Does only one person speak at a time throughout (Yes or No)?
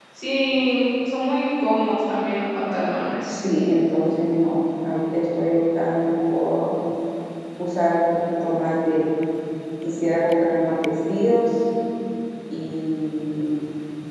Yes